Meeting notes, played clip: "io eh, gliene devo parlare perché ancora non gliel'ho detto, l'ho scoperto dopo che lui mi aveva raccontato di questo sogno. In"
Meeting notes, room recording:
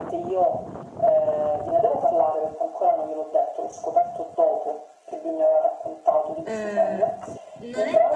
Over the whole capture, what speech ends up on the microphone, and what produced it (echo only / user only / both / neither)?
both